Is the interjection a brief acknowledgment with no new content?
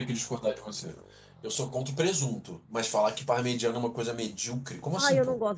No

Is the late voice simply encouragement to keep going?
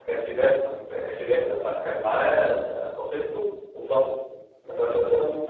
Yes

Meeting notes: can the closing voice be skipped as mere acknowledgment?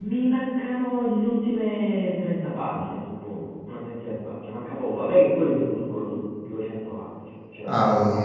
No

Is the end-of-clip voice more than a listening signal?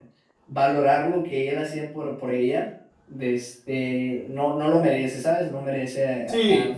Yes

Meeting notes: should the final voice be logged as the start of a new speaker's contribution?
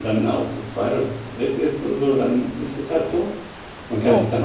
No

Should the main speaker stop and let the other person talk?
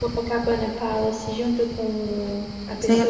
Yes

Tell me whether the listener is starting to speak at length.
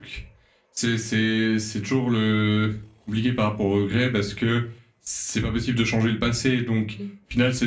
No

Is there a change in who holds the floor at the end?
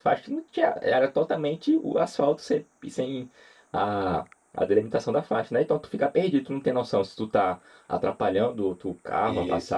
No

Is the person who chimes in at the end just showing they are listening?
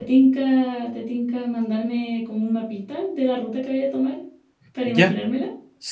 No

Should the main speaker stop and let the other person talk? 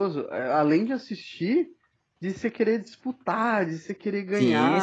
Yes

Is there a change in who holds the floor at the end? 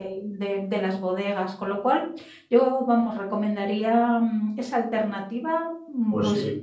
Yes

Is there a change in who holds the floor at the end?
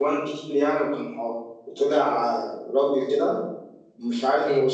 No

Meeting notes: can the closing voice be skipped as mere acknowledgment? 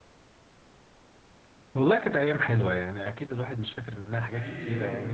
Yes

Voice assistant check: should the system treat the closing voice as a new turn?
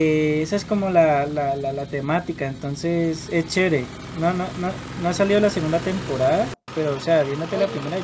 No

